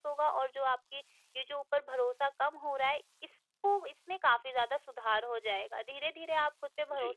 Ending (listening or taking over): listening